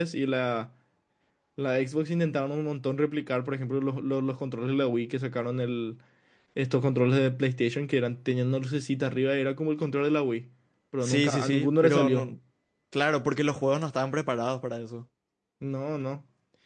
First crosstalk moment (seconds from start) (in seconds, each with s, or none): 11.0 s